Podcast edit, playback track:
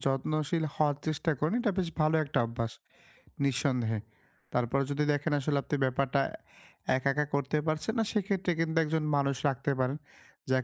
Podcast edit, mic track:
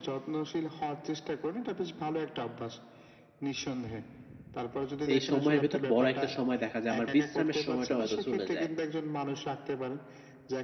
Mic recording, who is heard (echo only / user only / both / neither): both